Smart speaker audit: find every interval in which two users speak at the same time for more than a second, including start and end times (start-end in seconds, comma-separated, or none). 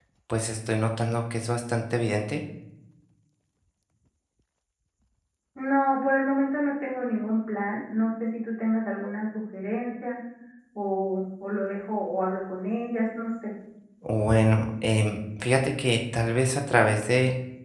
none